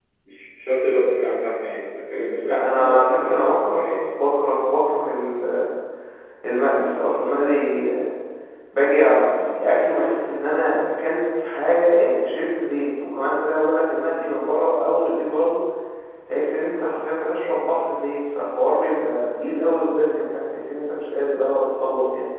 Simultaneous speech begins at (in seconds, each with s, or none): 2.4 s